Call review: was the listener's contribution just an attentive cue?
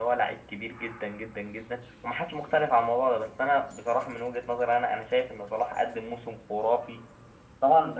Yes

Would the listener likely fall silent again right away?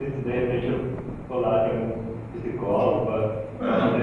Yes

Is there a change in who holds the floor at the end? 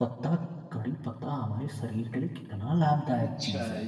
Yes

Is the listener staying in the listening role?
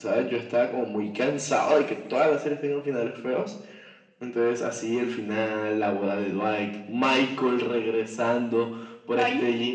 Yes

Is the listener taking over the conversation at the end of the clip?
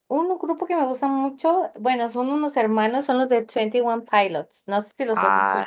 Yes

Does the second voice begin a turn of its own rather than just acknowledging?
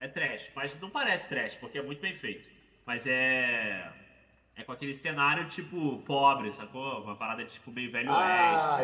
Yes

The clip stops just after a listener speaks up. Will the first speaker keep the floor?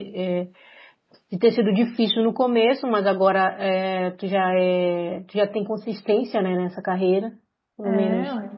Yes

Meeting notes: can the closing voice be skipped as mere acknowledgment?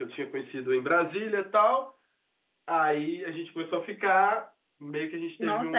Yes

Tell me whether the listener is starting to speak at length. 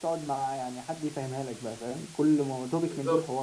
No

